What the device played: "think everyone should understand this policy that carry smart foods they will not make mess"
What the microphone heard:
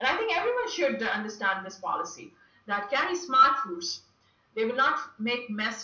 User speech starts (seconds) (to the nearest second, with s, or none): none